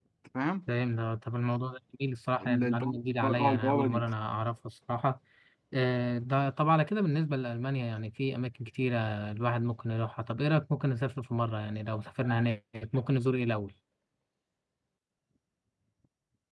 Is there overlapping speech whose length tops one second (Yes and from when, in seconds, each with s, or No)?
Yes, from 2.4 s